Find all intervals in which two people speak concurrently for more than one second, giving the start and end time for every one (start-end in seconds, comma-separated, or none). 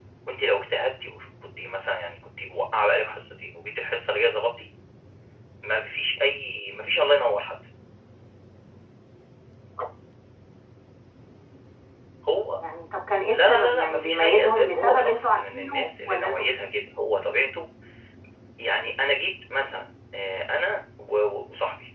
13.3-16.5